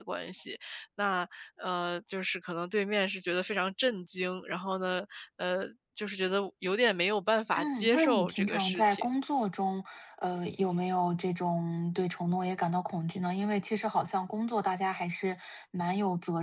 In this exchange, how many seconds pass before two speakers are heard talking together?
7.5 s

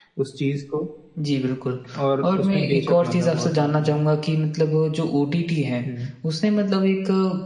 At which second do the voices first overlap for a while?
2.2 s

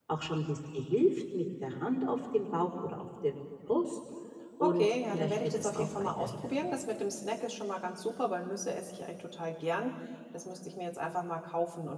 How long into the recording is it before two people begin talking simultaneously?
4.6 s

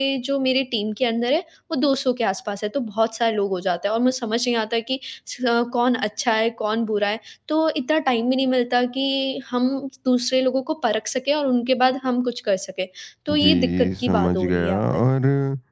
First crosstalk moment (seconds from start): 13.3 s

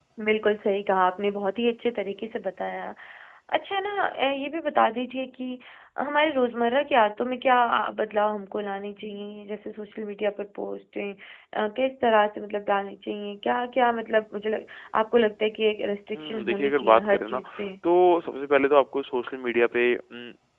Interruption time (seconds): 16.1 s

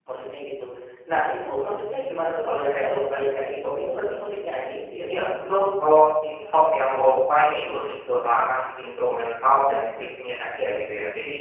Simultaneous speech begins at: none

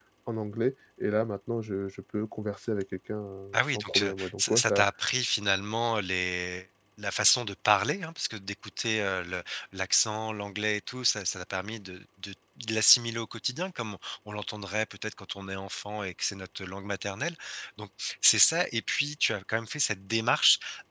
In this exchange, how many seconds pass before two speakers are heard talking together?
3.5 s

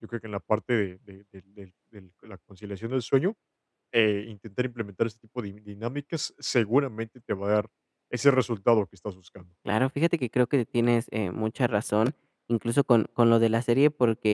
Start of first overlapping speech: none

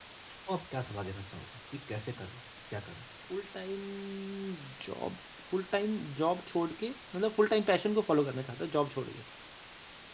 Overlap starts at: none

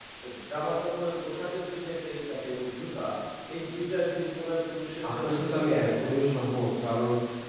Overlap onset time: 5.0 s

